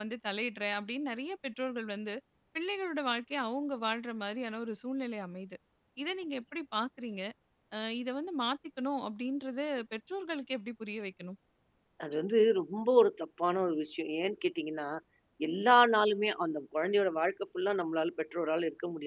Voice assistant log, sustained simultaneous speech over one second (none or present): none